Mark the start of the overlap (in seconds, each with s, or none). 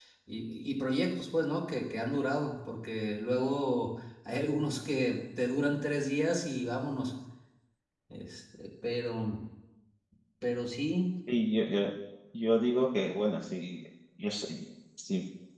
none